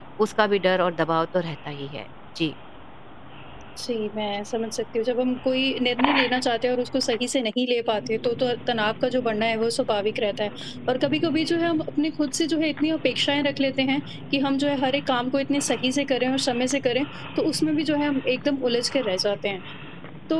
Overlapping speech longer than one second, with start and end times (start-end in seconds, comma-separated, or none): none